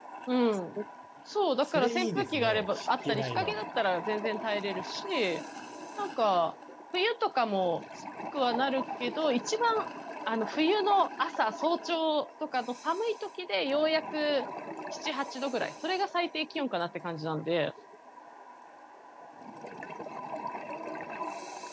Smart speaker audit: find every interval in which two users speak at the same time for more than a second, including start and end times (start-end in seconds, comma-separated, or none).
1.6-3.6